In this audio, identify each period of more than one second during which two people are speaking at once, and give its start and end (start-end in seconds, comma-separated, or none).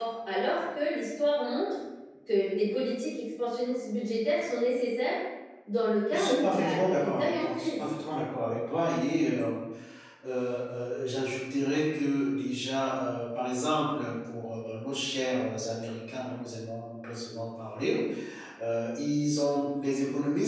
6.1-7.8